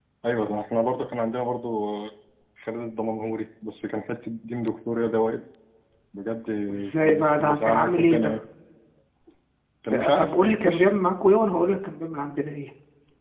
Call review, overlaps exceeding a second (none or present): present